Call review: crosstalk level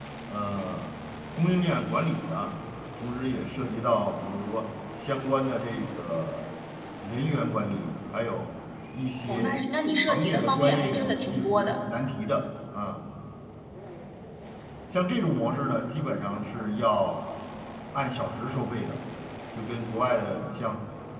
present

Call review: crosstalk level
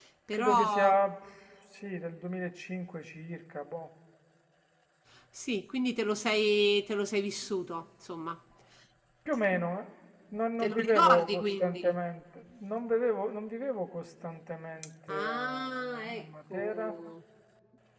present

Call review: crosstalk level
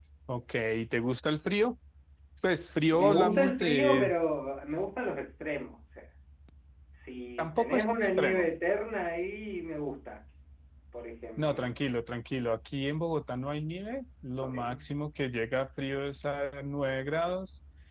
present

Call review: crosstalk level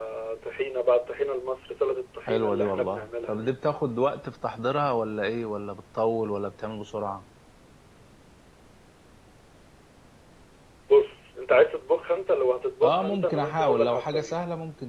present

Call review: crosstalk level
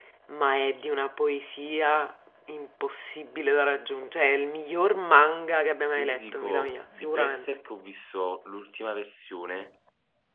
present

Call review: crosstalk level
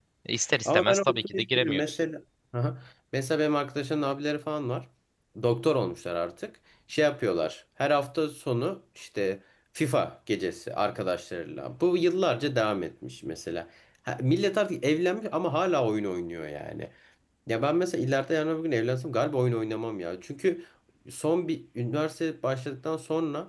present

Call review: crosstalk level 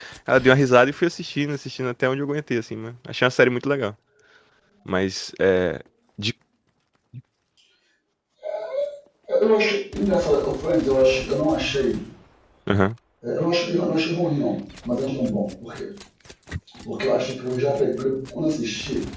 none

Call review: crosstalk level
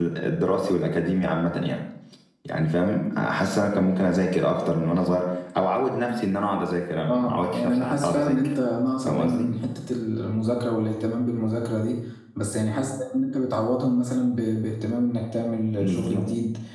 present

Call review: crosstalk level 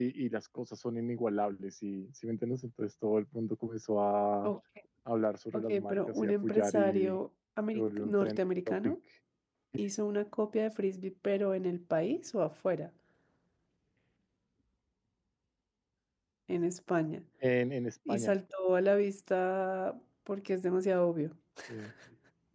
present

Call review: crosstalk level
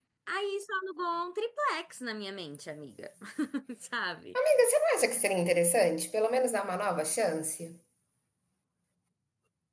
none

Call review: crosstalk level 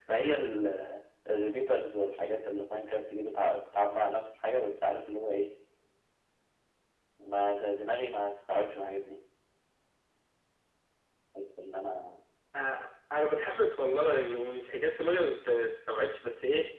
none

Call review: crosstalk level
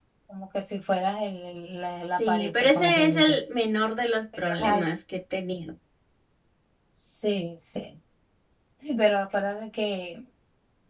present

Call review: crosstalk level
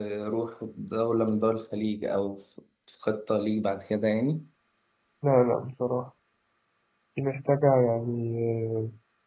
none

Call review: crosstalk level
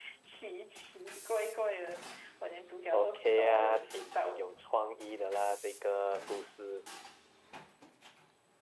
present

